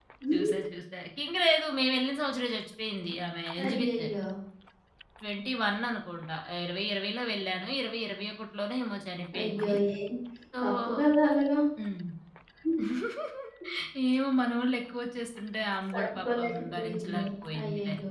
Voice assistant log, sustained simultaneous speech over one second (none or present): present